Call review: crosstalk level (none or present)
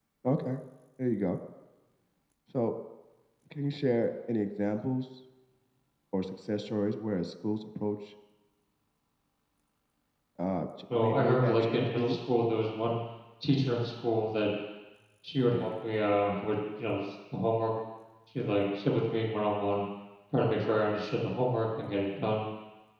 present